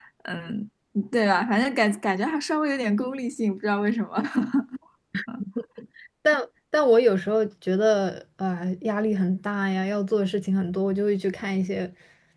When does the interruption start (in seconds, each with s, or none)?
none